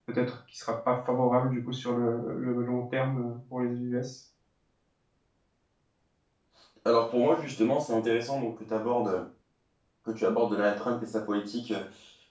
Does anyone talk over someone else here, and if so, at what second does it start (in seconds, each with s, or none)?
none